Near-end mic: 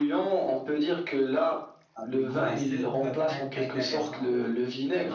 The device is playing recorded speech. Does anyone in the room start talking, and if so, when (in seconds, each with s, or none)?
2.0 s